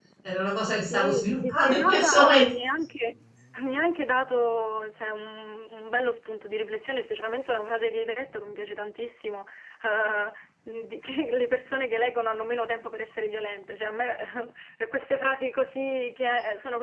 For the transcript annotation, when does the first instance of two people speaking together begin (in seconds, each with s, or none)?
0.8 s